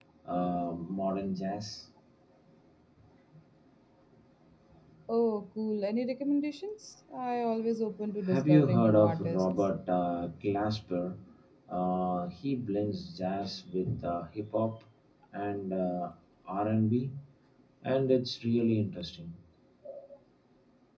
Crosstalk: present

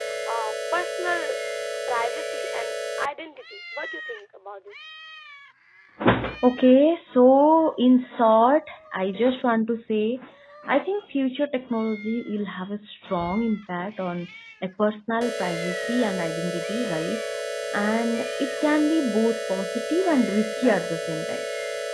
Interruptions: none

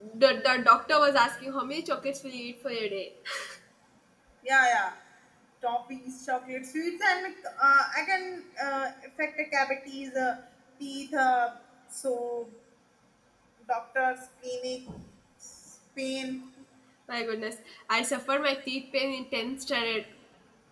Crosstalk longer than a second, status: none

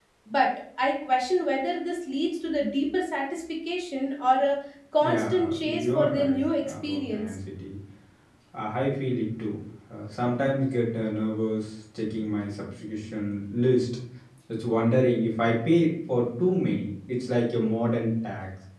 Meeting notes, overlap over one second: present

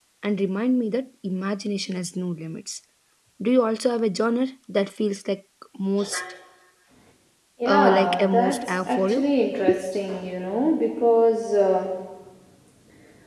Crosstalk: present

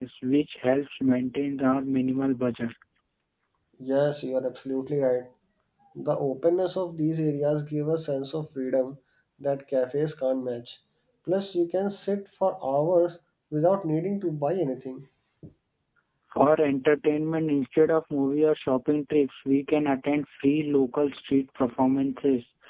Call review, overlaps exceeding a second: none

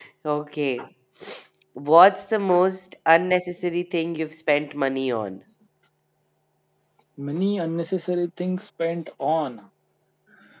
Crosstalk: none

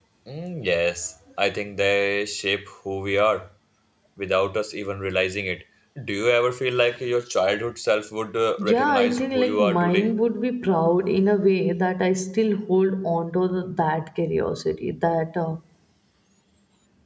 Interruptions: present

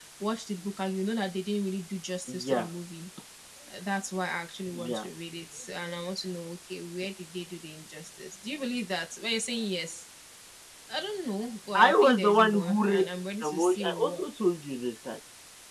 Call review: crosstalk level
present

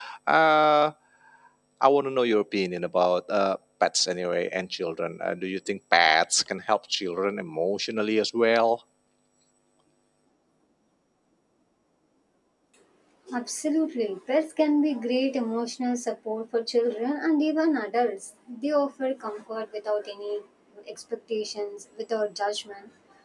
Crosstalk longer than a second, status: none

